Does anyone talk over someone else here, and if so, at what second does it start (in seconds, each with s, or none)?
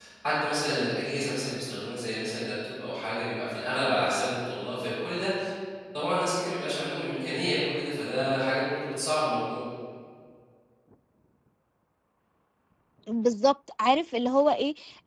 none